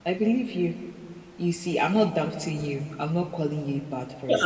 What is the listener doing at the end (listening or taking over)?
taking over